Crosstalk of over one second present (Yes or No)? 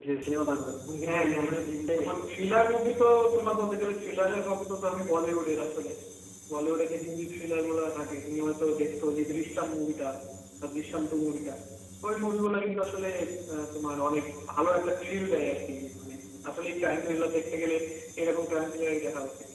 Yes